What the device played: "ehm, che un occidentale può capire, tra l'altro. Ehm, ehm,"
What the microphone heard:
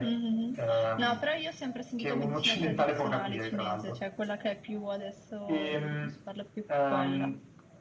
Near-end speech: present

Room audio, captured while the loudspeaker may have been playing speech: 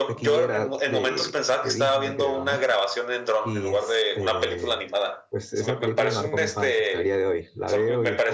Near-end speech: present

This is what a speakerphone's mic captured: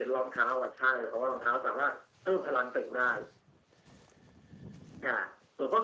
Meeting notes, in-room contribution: none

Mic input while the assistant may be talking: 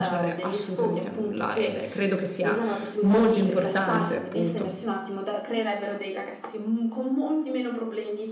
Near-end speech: present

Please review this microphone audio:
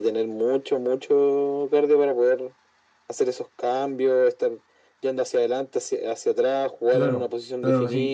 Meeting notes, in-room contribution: present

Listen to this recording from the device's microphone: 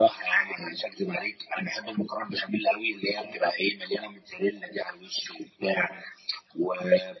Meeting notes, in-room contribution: none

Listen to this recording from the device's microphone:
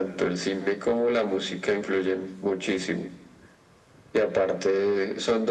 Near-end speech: none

